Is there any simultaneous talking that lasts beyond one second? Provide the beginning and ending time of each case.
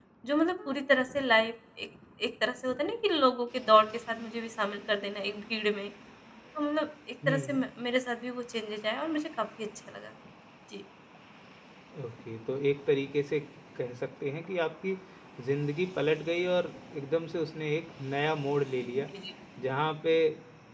none

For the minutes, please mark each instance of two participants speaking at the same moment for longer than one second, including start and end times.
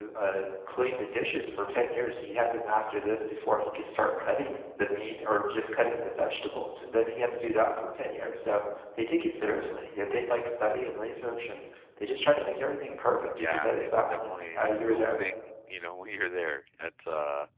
13.4-15.2

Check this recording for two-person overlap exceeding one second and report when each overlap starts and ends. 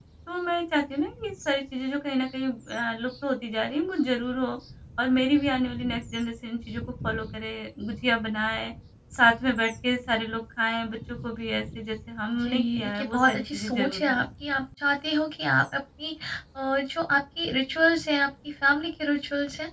12.3-14.2

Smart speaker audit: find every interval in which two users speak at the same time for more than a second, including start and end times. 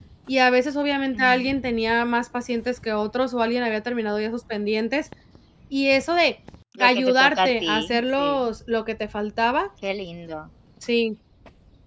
6.8-8.3

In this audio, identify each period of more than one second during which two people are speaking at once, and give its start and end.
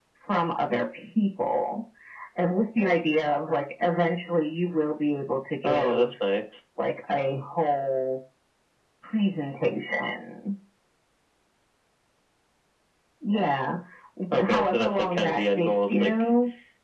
14.3-16.1

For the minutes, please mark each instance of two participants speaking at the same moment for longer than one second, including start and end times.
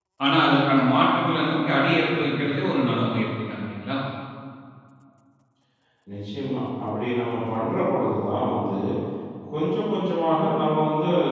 none

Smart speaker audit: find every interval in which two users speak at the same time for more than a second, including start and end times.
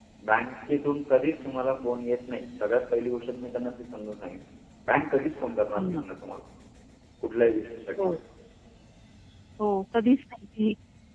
none

